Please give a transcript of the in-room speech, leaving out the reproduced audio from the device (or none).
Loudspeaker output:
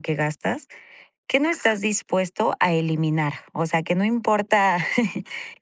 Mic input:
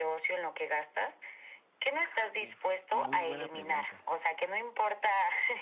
Uf, muy buena pregunta.